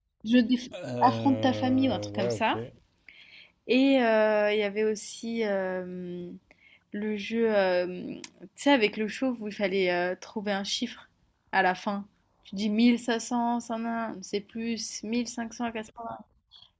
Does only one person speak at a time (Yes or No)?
No